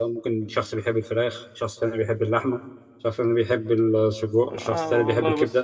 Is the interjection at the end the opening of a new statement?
Yes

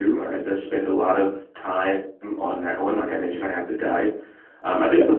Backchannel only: Yes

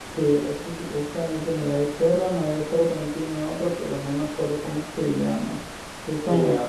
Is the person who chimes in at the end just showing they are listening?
No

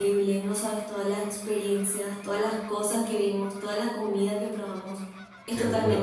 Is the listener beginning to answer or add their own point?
No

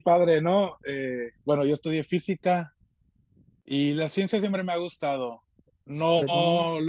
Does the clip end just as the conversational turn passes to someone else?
No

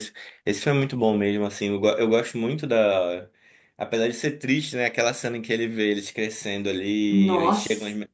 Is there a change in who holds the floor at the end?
No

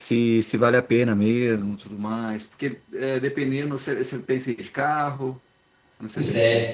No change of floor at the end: No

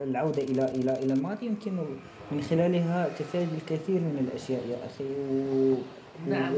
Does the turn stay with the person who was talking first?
No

